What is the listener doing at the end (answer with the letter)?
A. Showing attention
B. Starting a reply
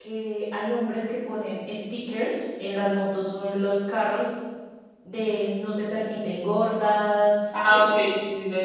B